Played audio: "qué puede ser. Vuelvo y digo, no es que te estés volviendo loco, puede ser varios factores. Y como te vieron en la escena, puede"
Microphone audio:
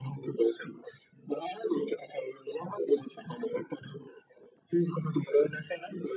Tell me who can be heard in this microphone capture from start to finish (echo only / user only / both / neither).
echo only